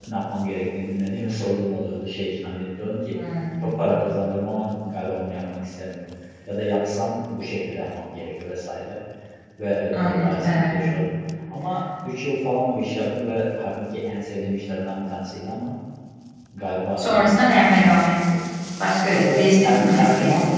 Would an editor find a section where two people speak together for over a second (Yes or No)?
Yes